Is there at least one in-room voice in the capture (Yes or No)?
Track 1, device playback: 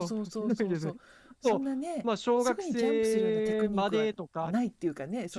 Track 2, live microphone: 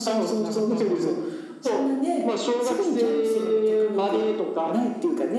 Yes